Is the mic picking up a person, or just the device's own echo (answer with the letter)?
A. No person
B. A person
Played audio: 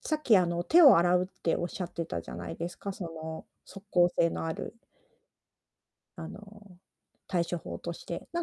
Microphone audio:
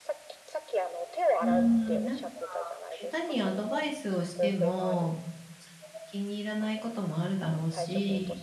B